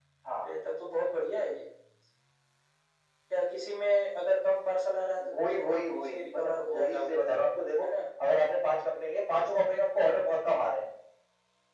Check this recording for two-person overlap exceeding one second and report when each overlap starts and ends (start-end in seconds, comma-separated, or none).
5.2-7.2